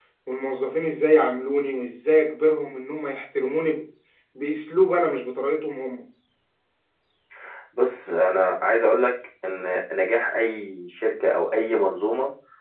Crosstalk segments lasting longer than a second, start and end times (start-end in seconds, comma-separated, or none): none